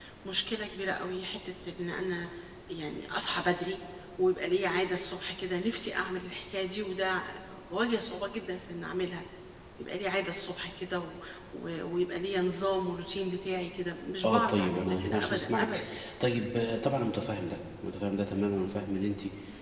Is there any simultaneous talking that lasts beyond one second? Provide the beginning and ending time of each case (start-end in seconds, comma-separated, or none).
14.2-15.8